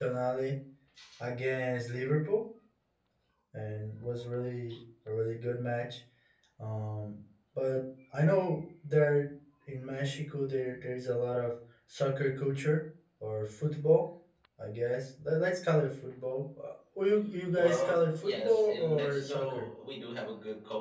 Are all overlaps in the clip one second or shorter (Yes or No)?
No